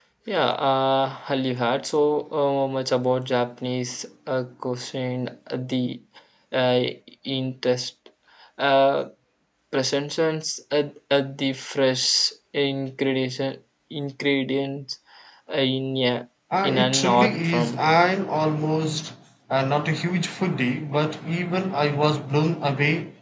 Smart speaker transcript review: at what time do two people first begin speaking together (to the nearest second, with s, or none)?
17 s